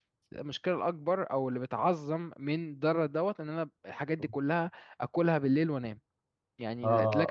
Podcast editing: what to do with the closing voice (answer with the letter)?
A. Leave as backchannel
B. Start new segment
B